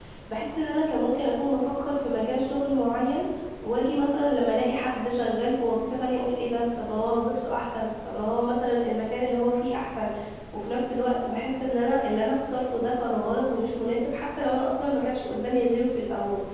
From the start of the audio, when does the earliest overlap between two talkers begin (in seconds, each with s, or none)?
none